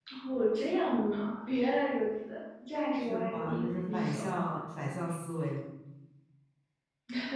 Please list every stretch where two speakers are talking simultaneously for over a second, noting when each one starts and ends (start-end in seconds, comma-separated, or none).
3.0-4.2